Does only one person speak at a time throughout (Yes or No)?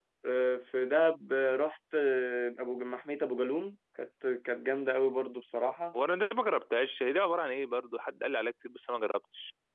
Yes